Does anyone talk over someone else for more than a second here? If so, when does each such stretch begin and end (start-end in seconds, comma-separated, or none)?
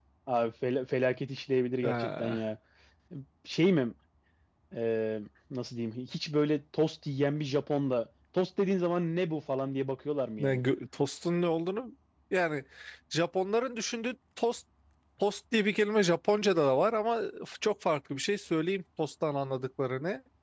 none